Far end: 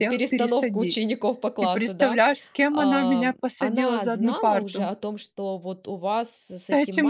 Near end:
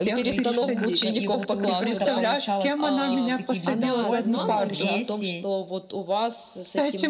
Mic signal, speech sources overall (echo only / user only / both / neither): both